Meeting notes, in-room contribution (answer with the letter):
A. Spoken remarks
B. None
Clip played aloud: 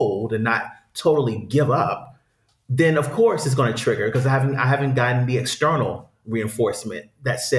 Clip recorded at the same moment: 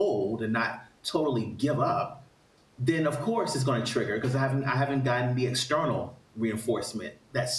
B